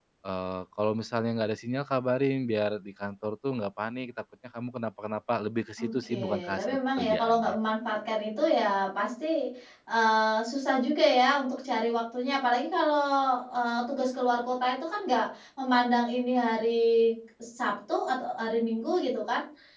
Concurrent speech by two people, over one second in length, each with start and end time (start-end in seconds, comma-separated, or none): 5.8-7.6